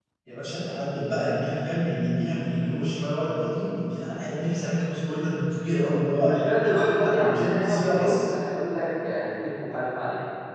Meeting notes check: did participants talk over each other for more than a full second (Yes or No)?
Yes